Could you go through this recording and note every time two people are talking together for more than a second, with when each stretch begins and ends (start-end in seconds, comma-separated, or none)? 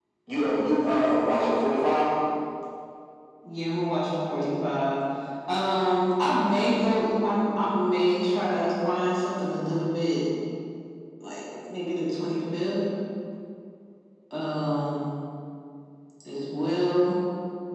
none